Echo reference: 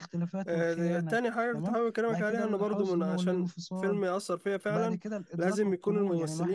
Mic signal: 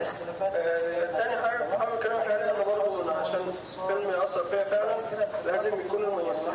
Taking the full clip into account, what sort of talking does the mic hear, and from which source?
echo only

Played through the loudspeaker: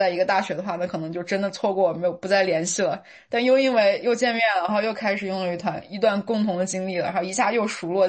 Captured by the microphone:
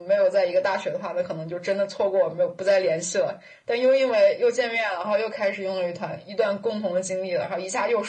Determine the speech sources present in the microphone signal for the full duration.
echo only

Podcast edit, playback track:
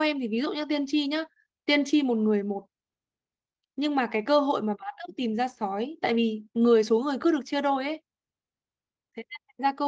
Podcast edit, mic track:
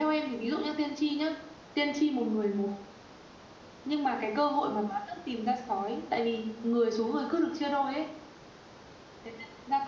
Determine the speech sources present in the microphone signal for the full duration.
echo only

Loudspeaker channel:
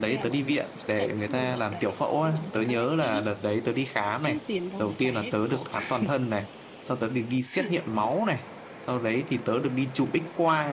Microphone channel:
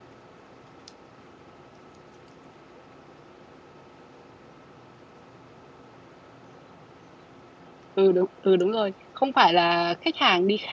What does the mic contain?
user only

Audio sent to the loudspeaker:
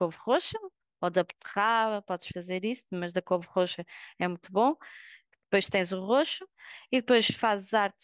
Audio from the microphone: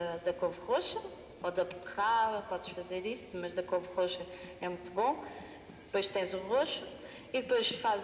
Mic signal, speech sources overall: echo only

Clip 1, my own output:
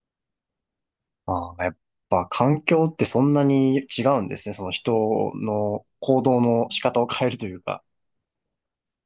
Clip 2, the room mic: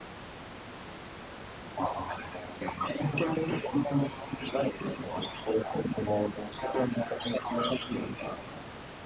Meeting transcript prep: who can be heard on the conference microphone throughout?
echo only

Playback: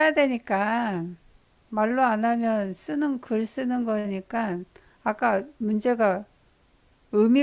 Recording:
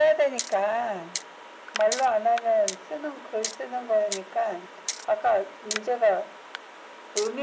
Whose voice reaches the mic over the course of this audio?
echo only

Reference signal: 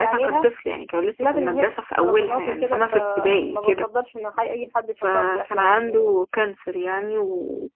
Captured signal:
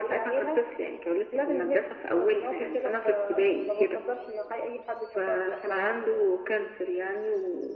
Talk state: echo only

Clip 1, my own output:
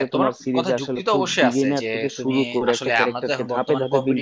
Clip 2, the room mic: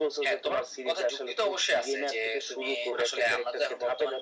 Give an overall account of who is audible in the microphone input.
echo only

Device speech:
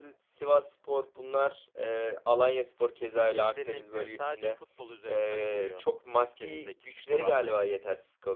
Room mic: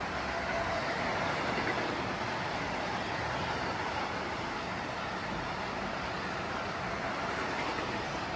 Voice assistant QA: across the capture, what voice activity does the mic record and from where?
neither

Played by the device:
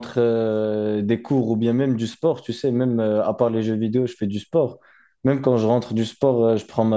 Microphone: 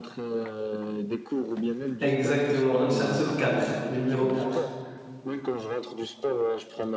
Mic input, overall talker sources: both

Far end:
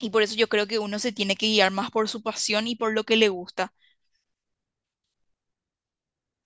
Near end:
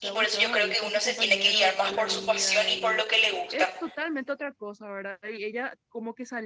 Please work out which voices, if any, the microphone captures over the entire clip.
both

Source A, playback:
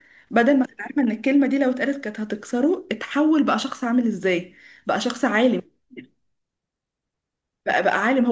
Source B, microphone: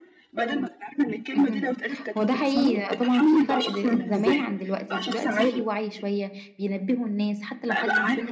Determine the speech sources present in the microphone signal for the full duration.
both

